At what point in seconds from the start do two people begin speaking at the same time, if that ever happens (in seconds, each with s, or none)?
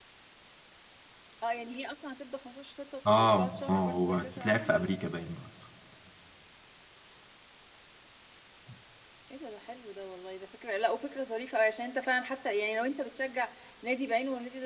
3.0 s